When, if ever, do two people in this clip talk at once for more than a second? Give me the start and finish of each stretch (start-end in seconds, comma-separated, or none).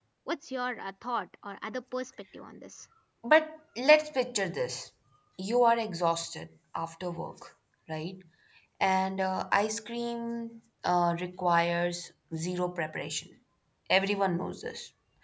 none